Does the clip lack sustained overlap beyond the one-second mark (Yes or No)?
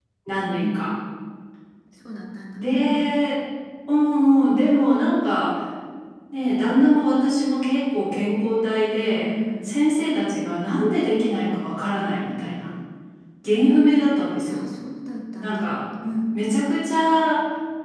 Yes